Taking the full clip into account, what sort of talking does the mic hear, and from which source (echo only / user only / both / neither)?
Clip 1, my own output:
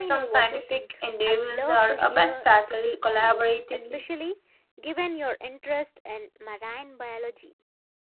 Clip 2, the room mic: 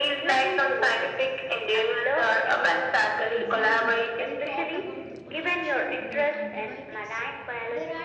both